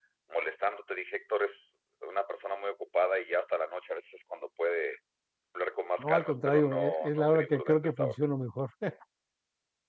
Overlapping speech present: Yes, from 6.0 s

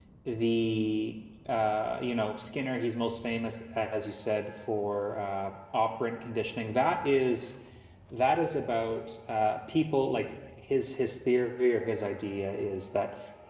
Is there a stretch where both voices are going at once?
No

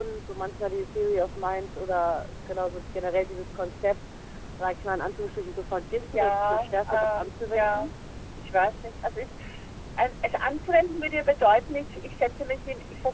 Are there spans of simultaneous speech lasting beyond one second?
Yes, from 6.0 s

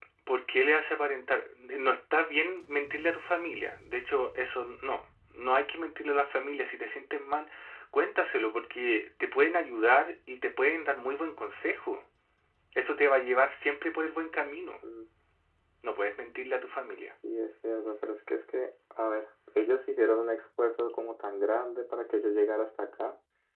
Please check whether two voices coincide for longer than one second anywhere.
No

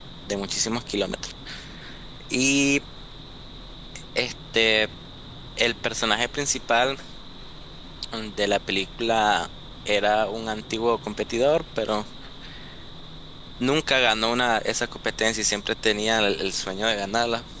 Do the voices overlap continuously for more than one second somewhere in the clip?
No

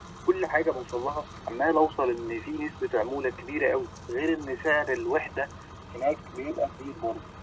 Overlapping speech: No

